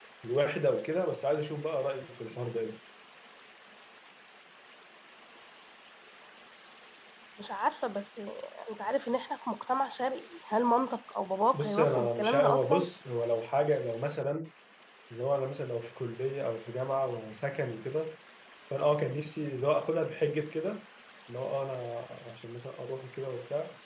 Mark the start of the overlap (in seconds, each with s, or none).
11.5 s